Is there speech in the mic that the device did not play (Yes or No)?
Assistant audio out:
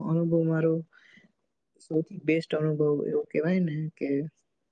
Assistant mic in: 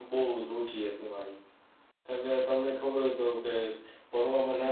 Yes